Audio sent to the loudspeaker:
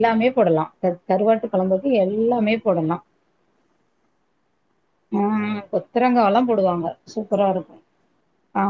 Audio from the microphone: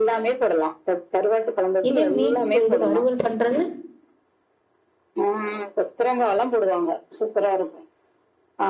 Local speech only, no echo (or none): இது மீன் ஓ இது வறுவல் பண்றது